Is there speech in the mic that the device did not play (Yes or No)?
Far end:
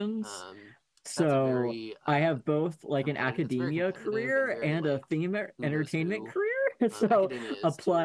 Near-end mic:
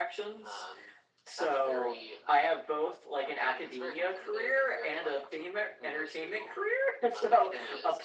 No